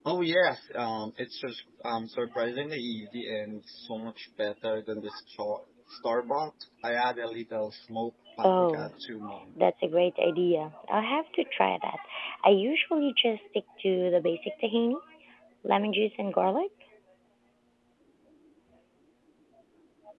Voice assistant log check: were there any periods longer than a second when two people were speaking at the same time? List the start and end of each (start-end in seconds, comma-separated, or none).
none